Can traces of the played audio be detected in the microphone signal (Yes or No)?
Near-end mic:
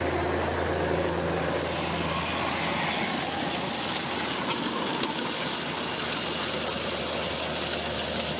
No